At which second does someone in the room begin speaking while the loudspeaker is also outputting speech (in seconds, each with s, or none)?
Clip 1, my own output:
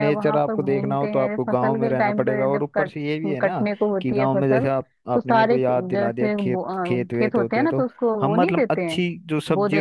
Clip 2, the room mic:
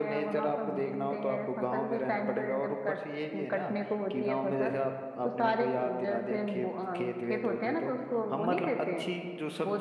none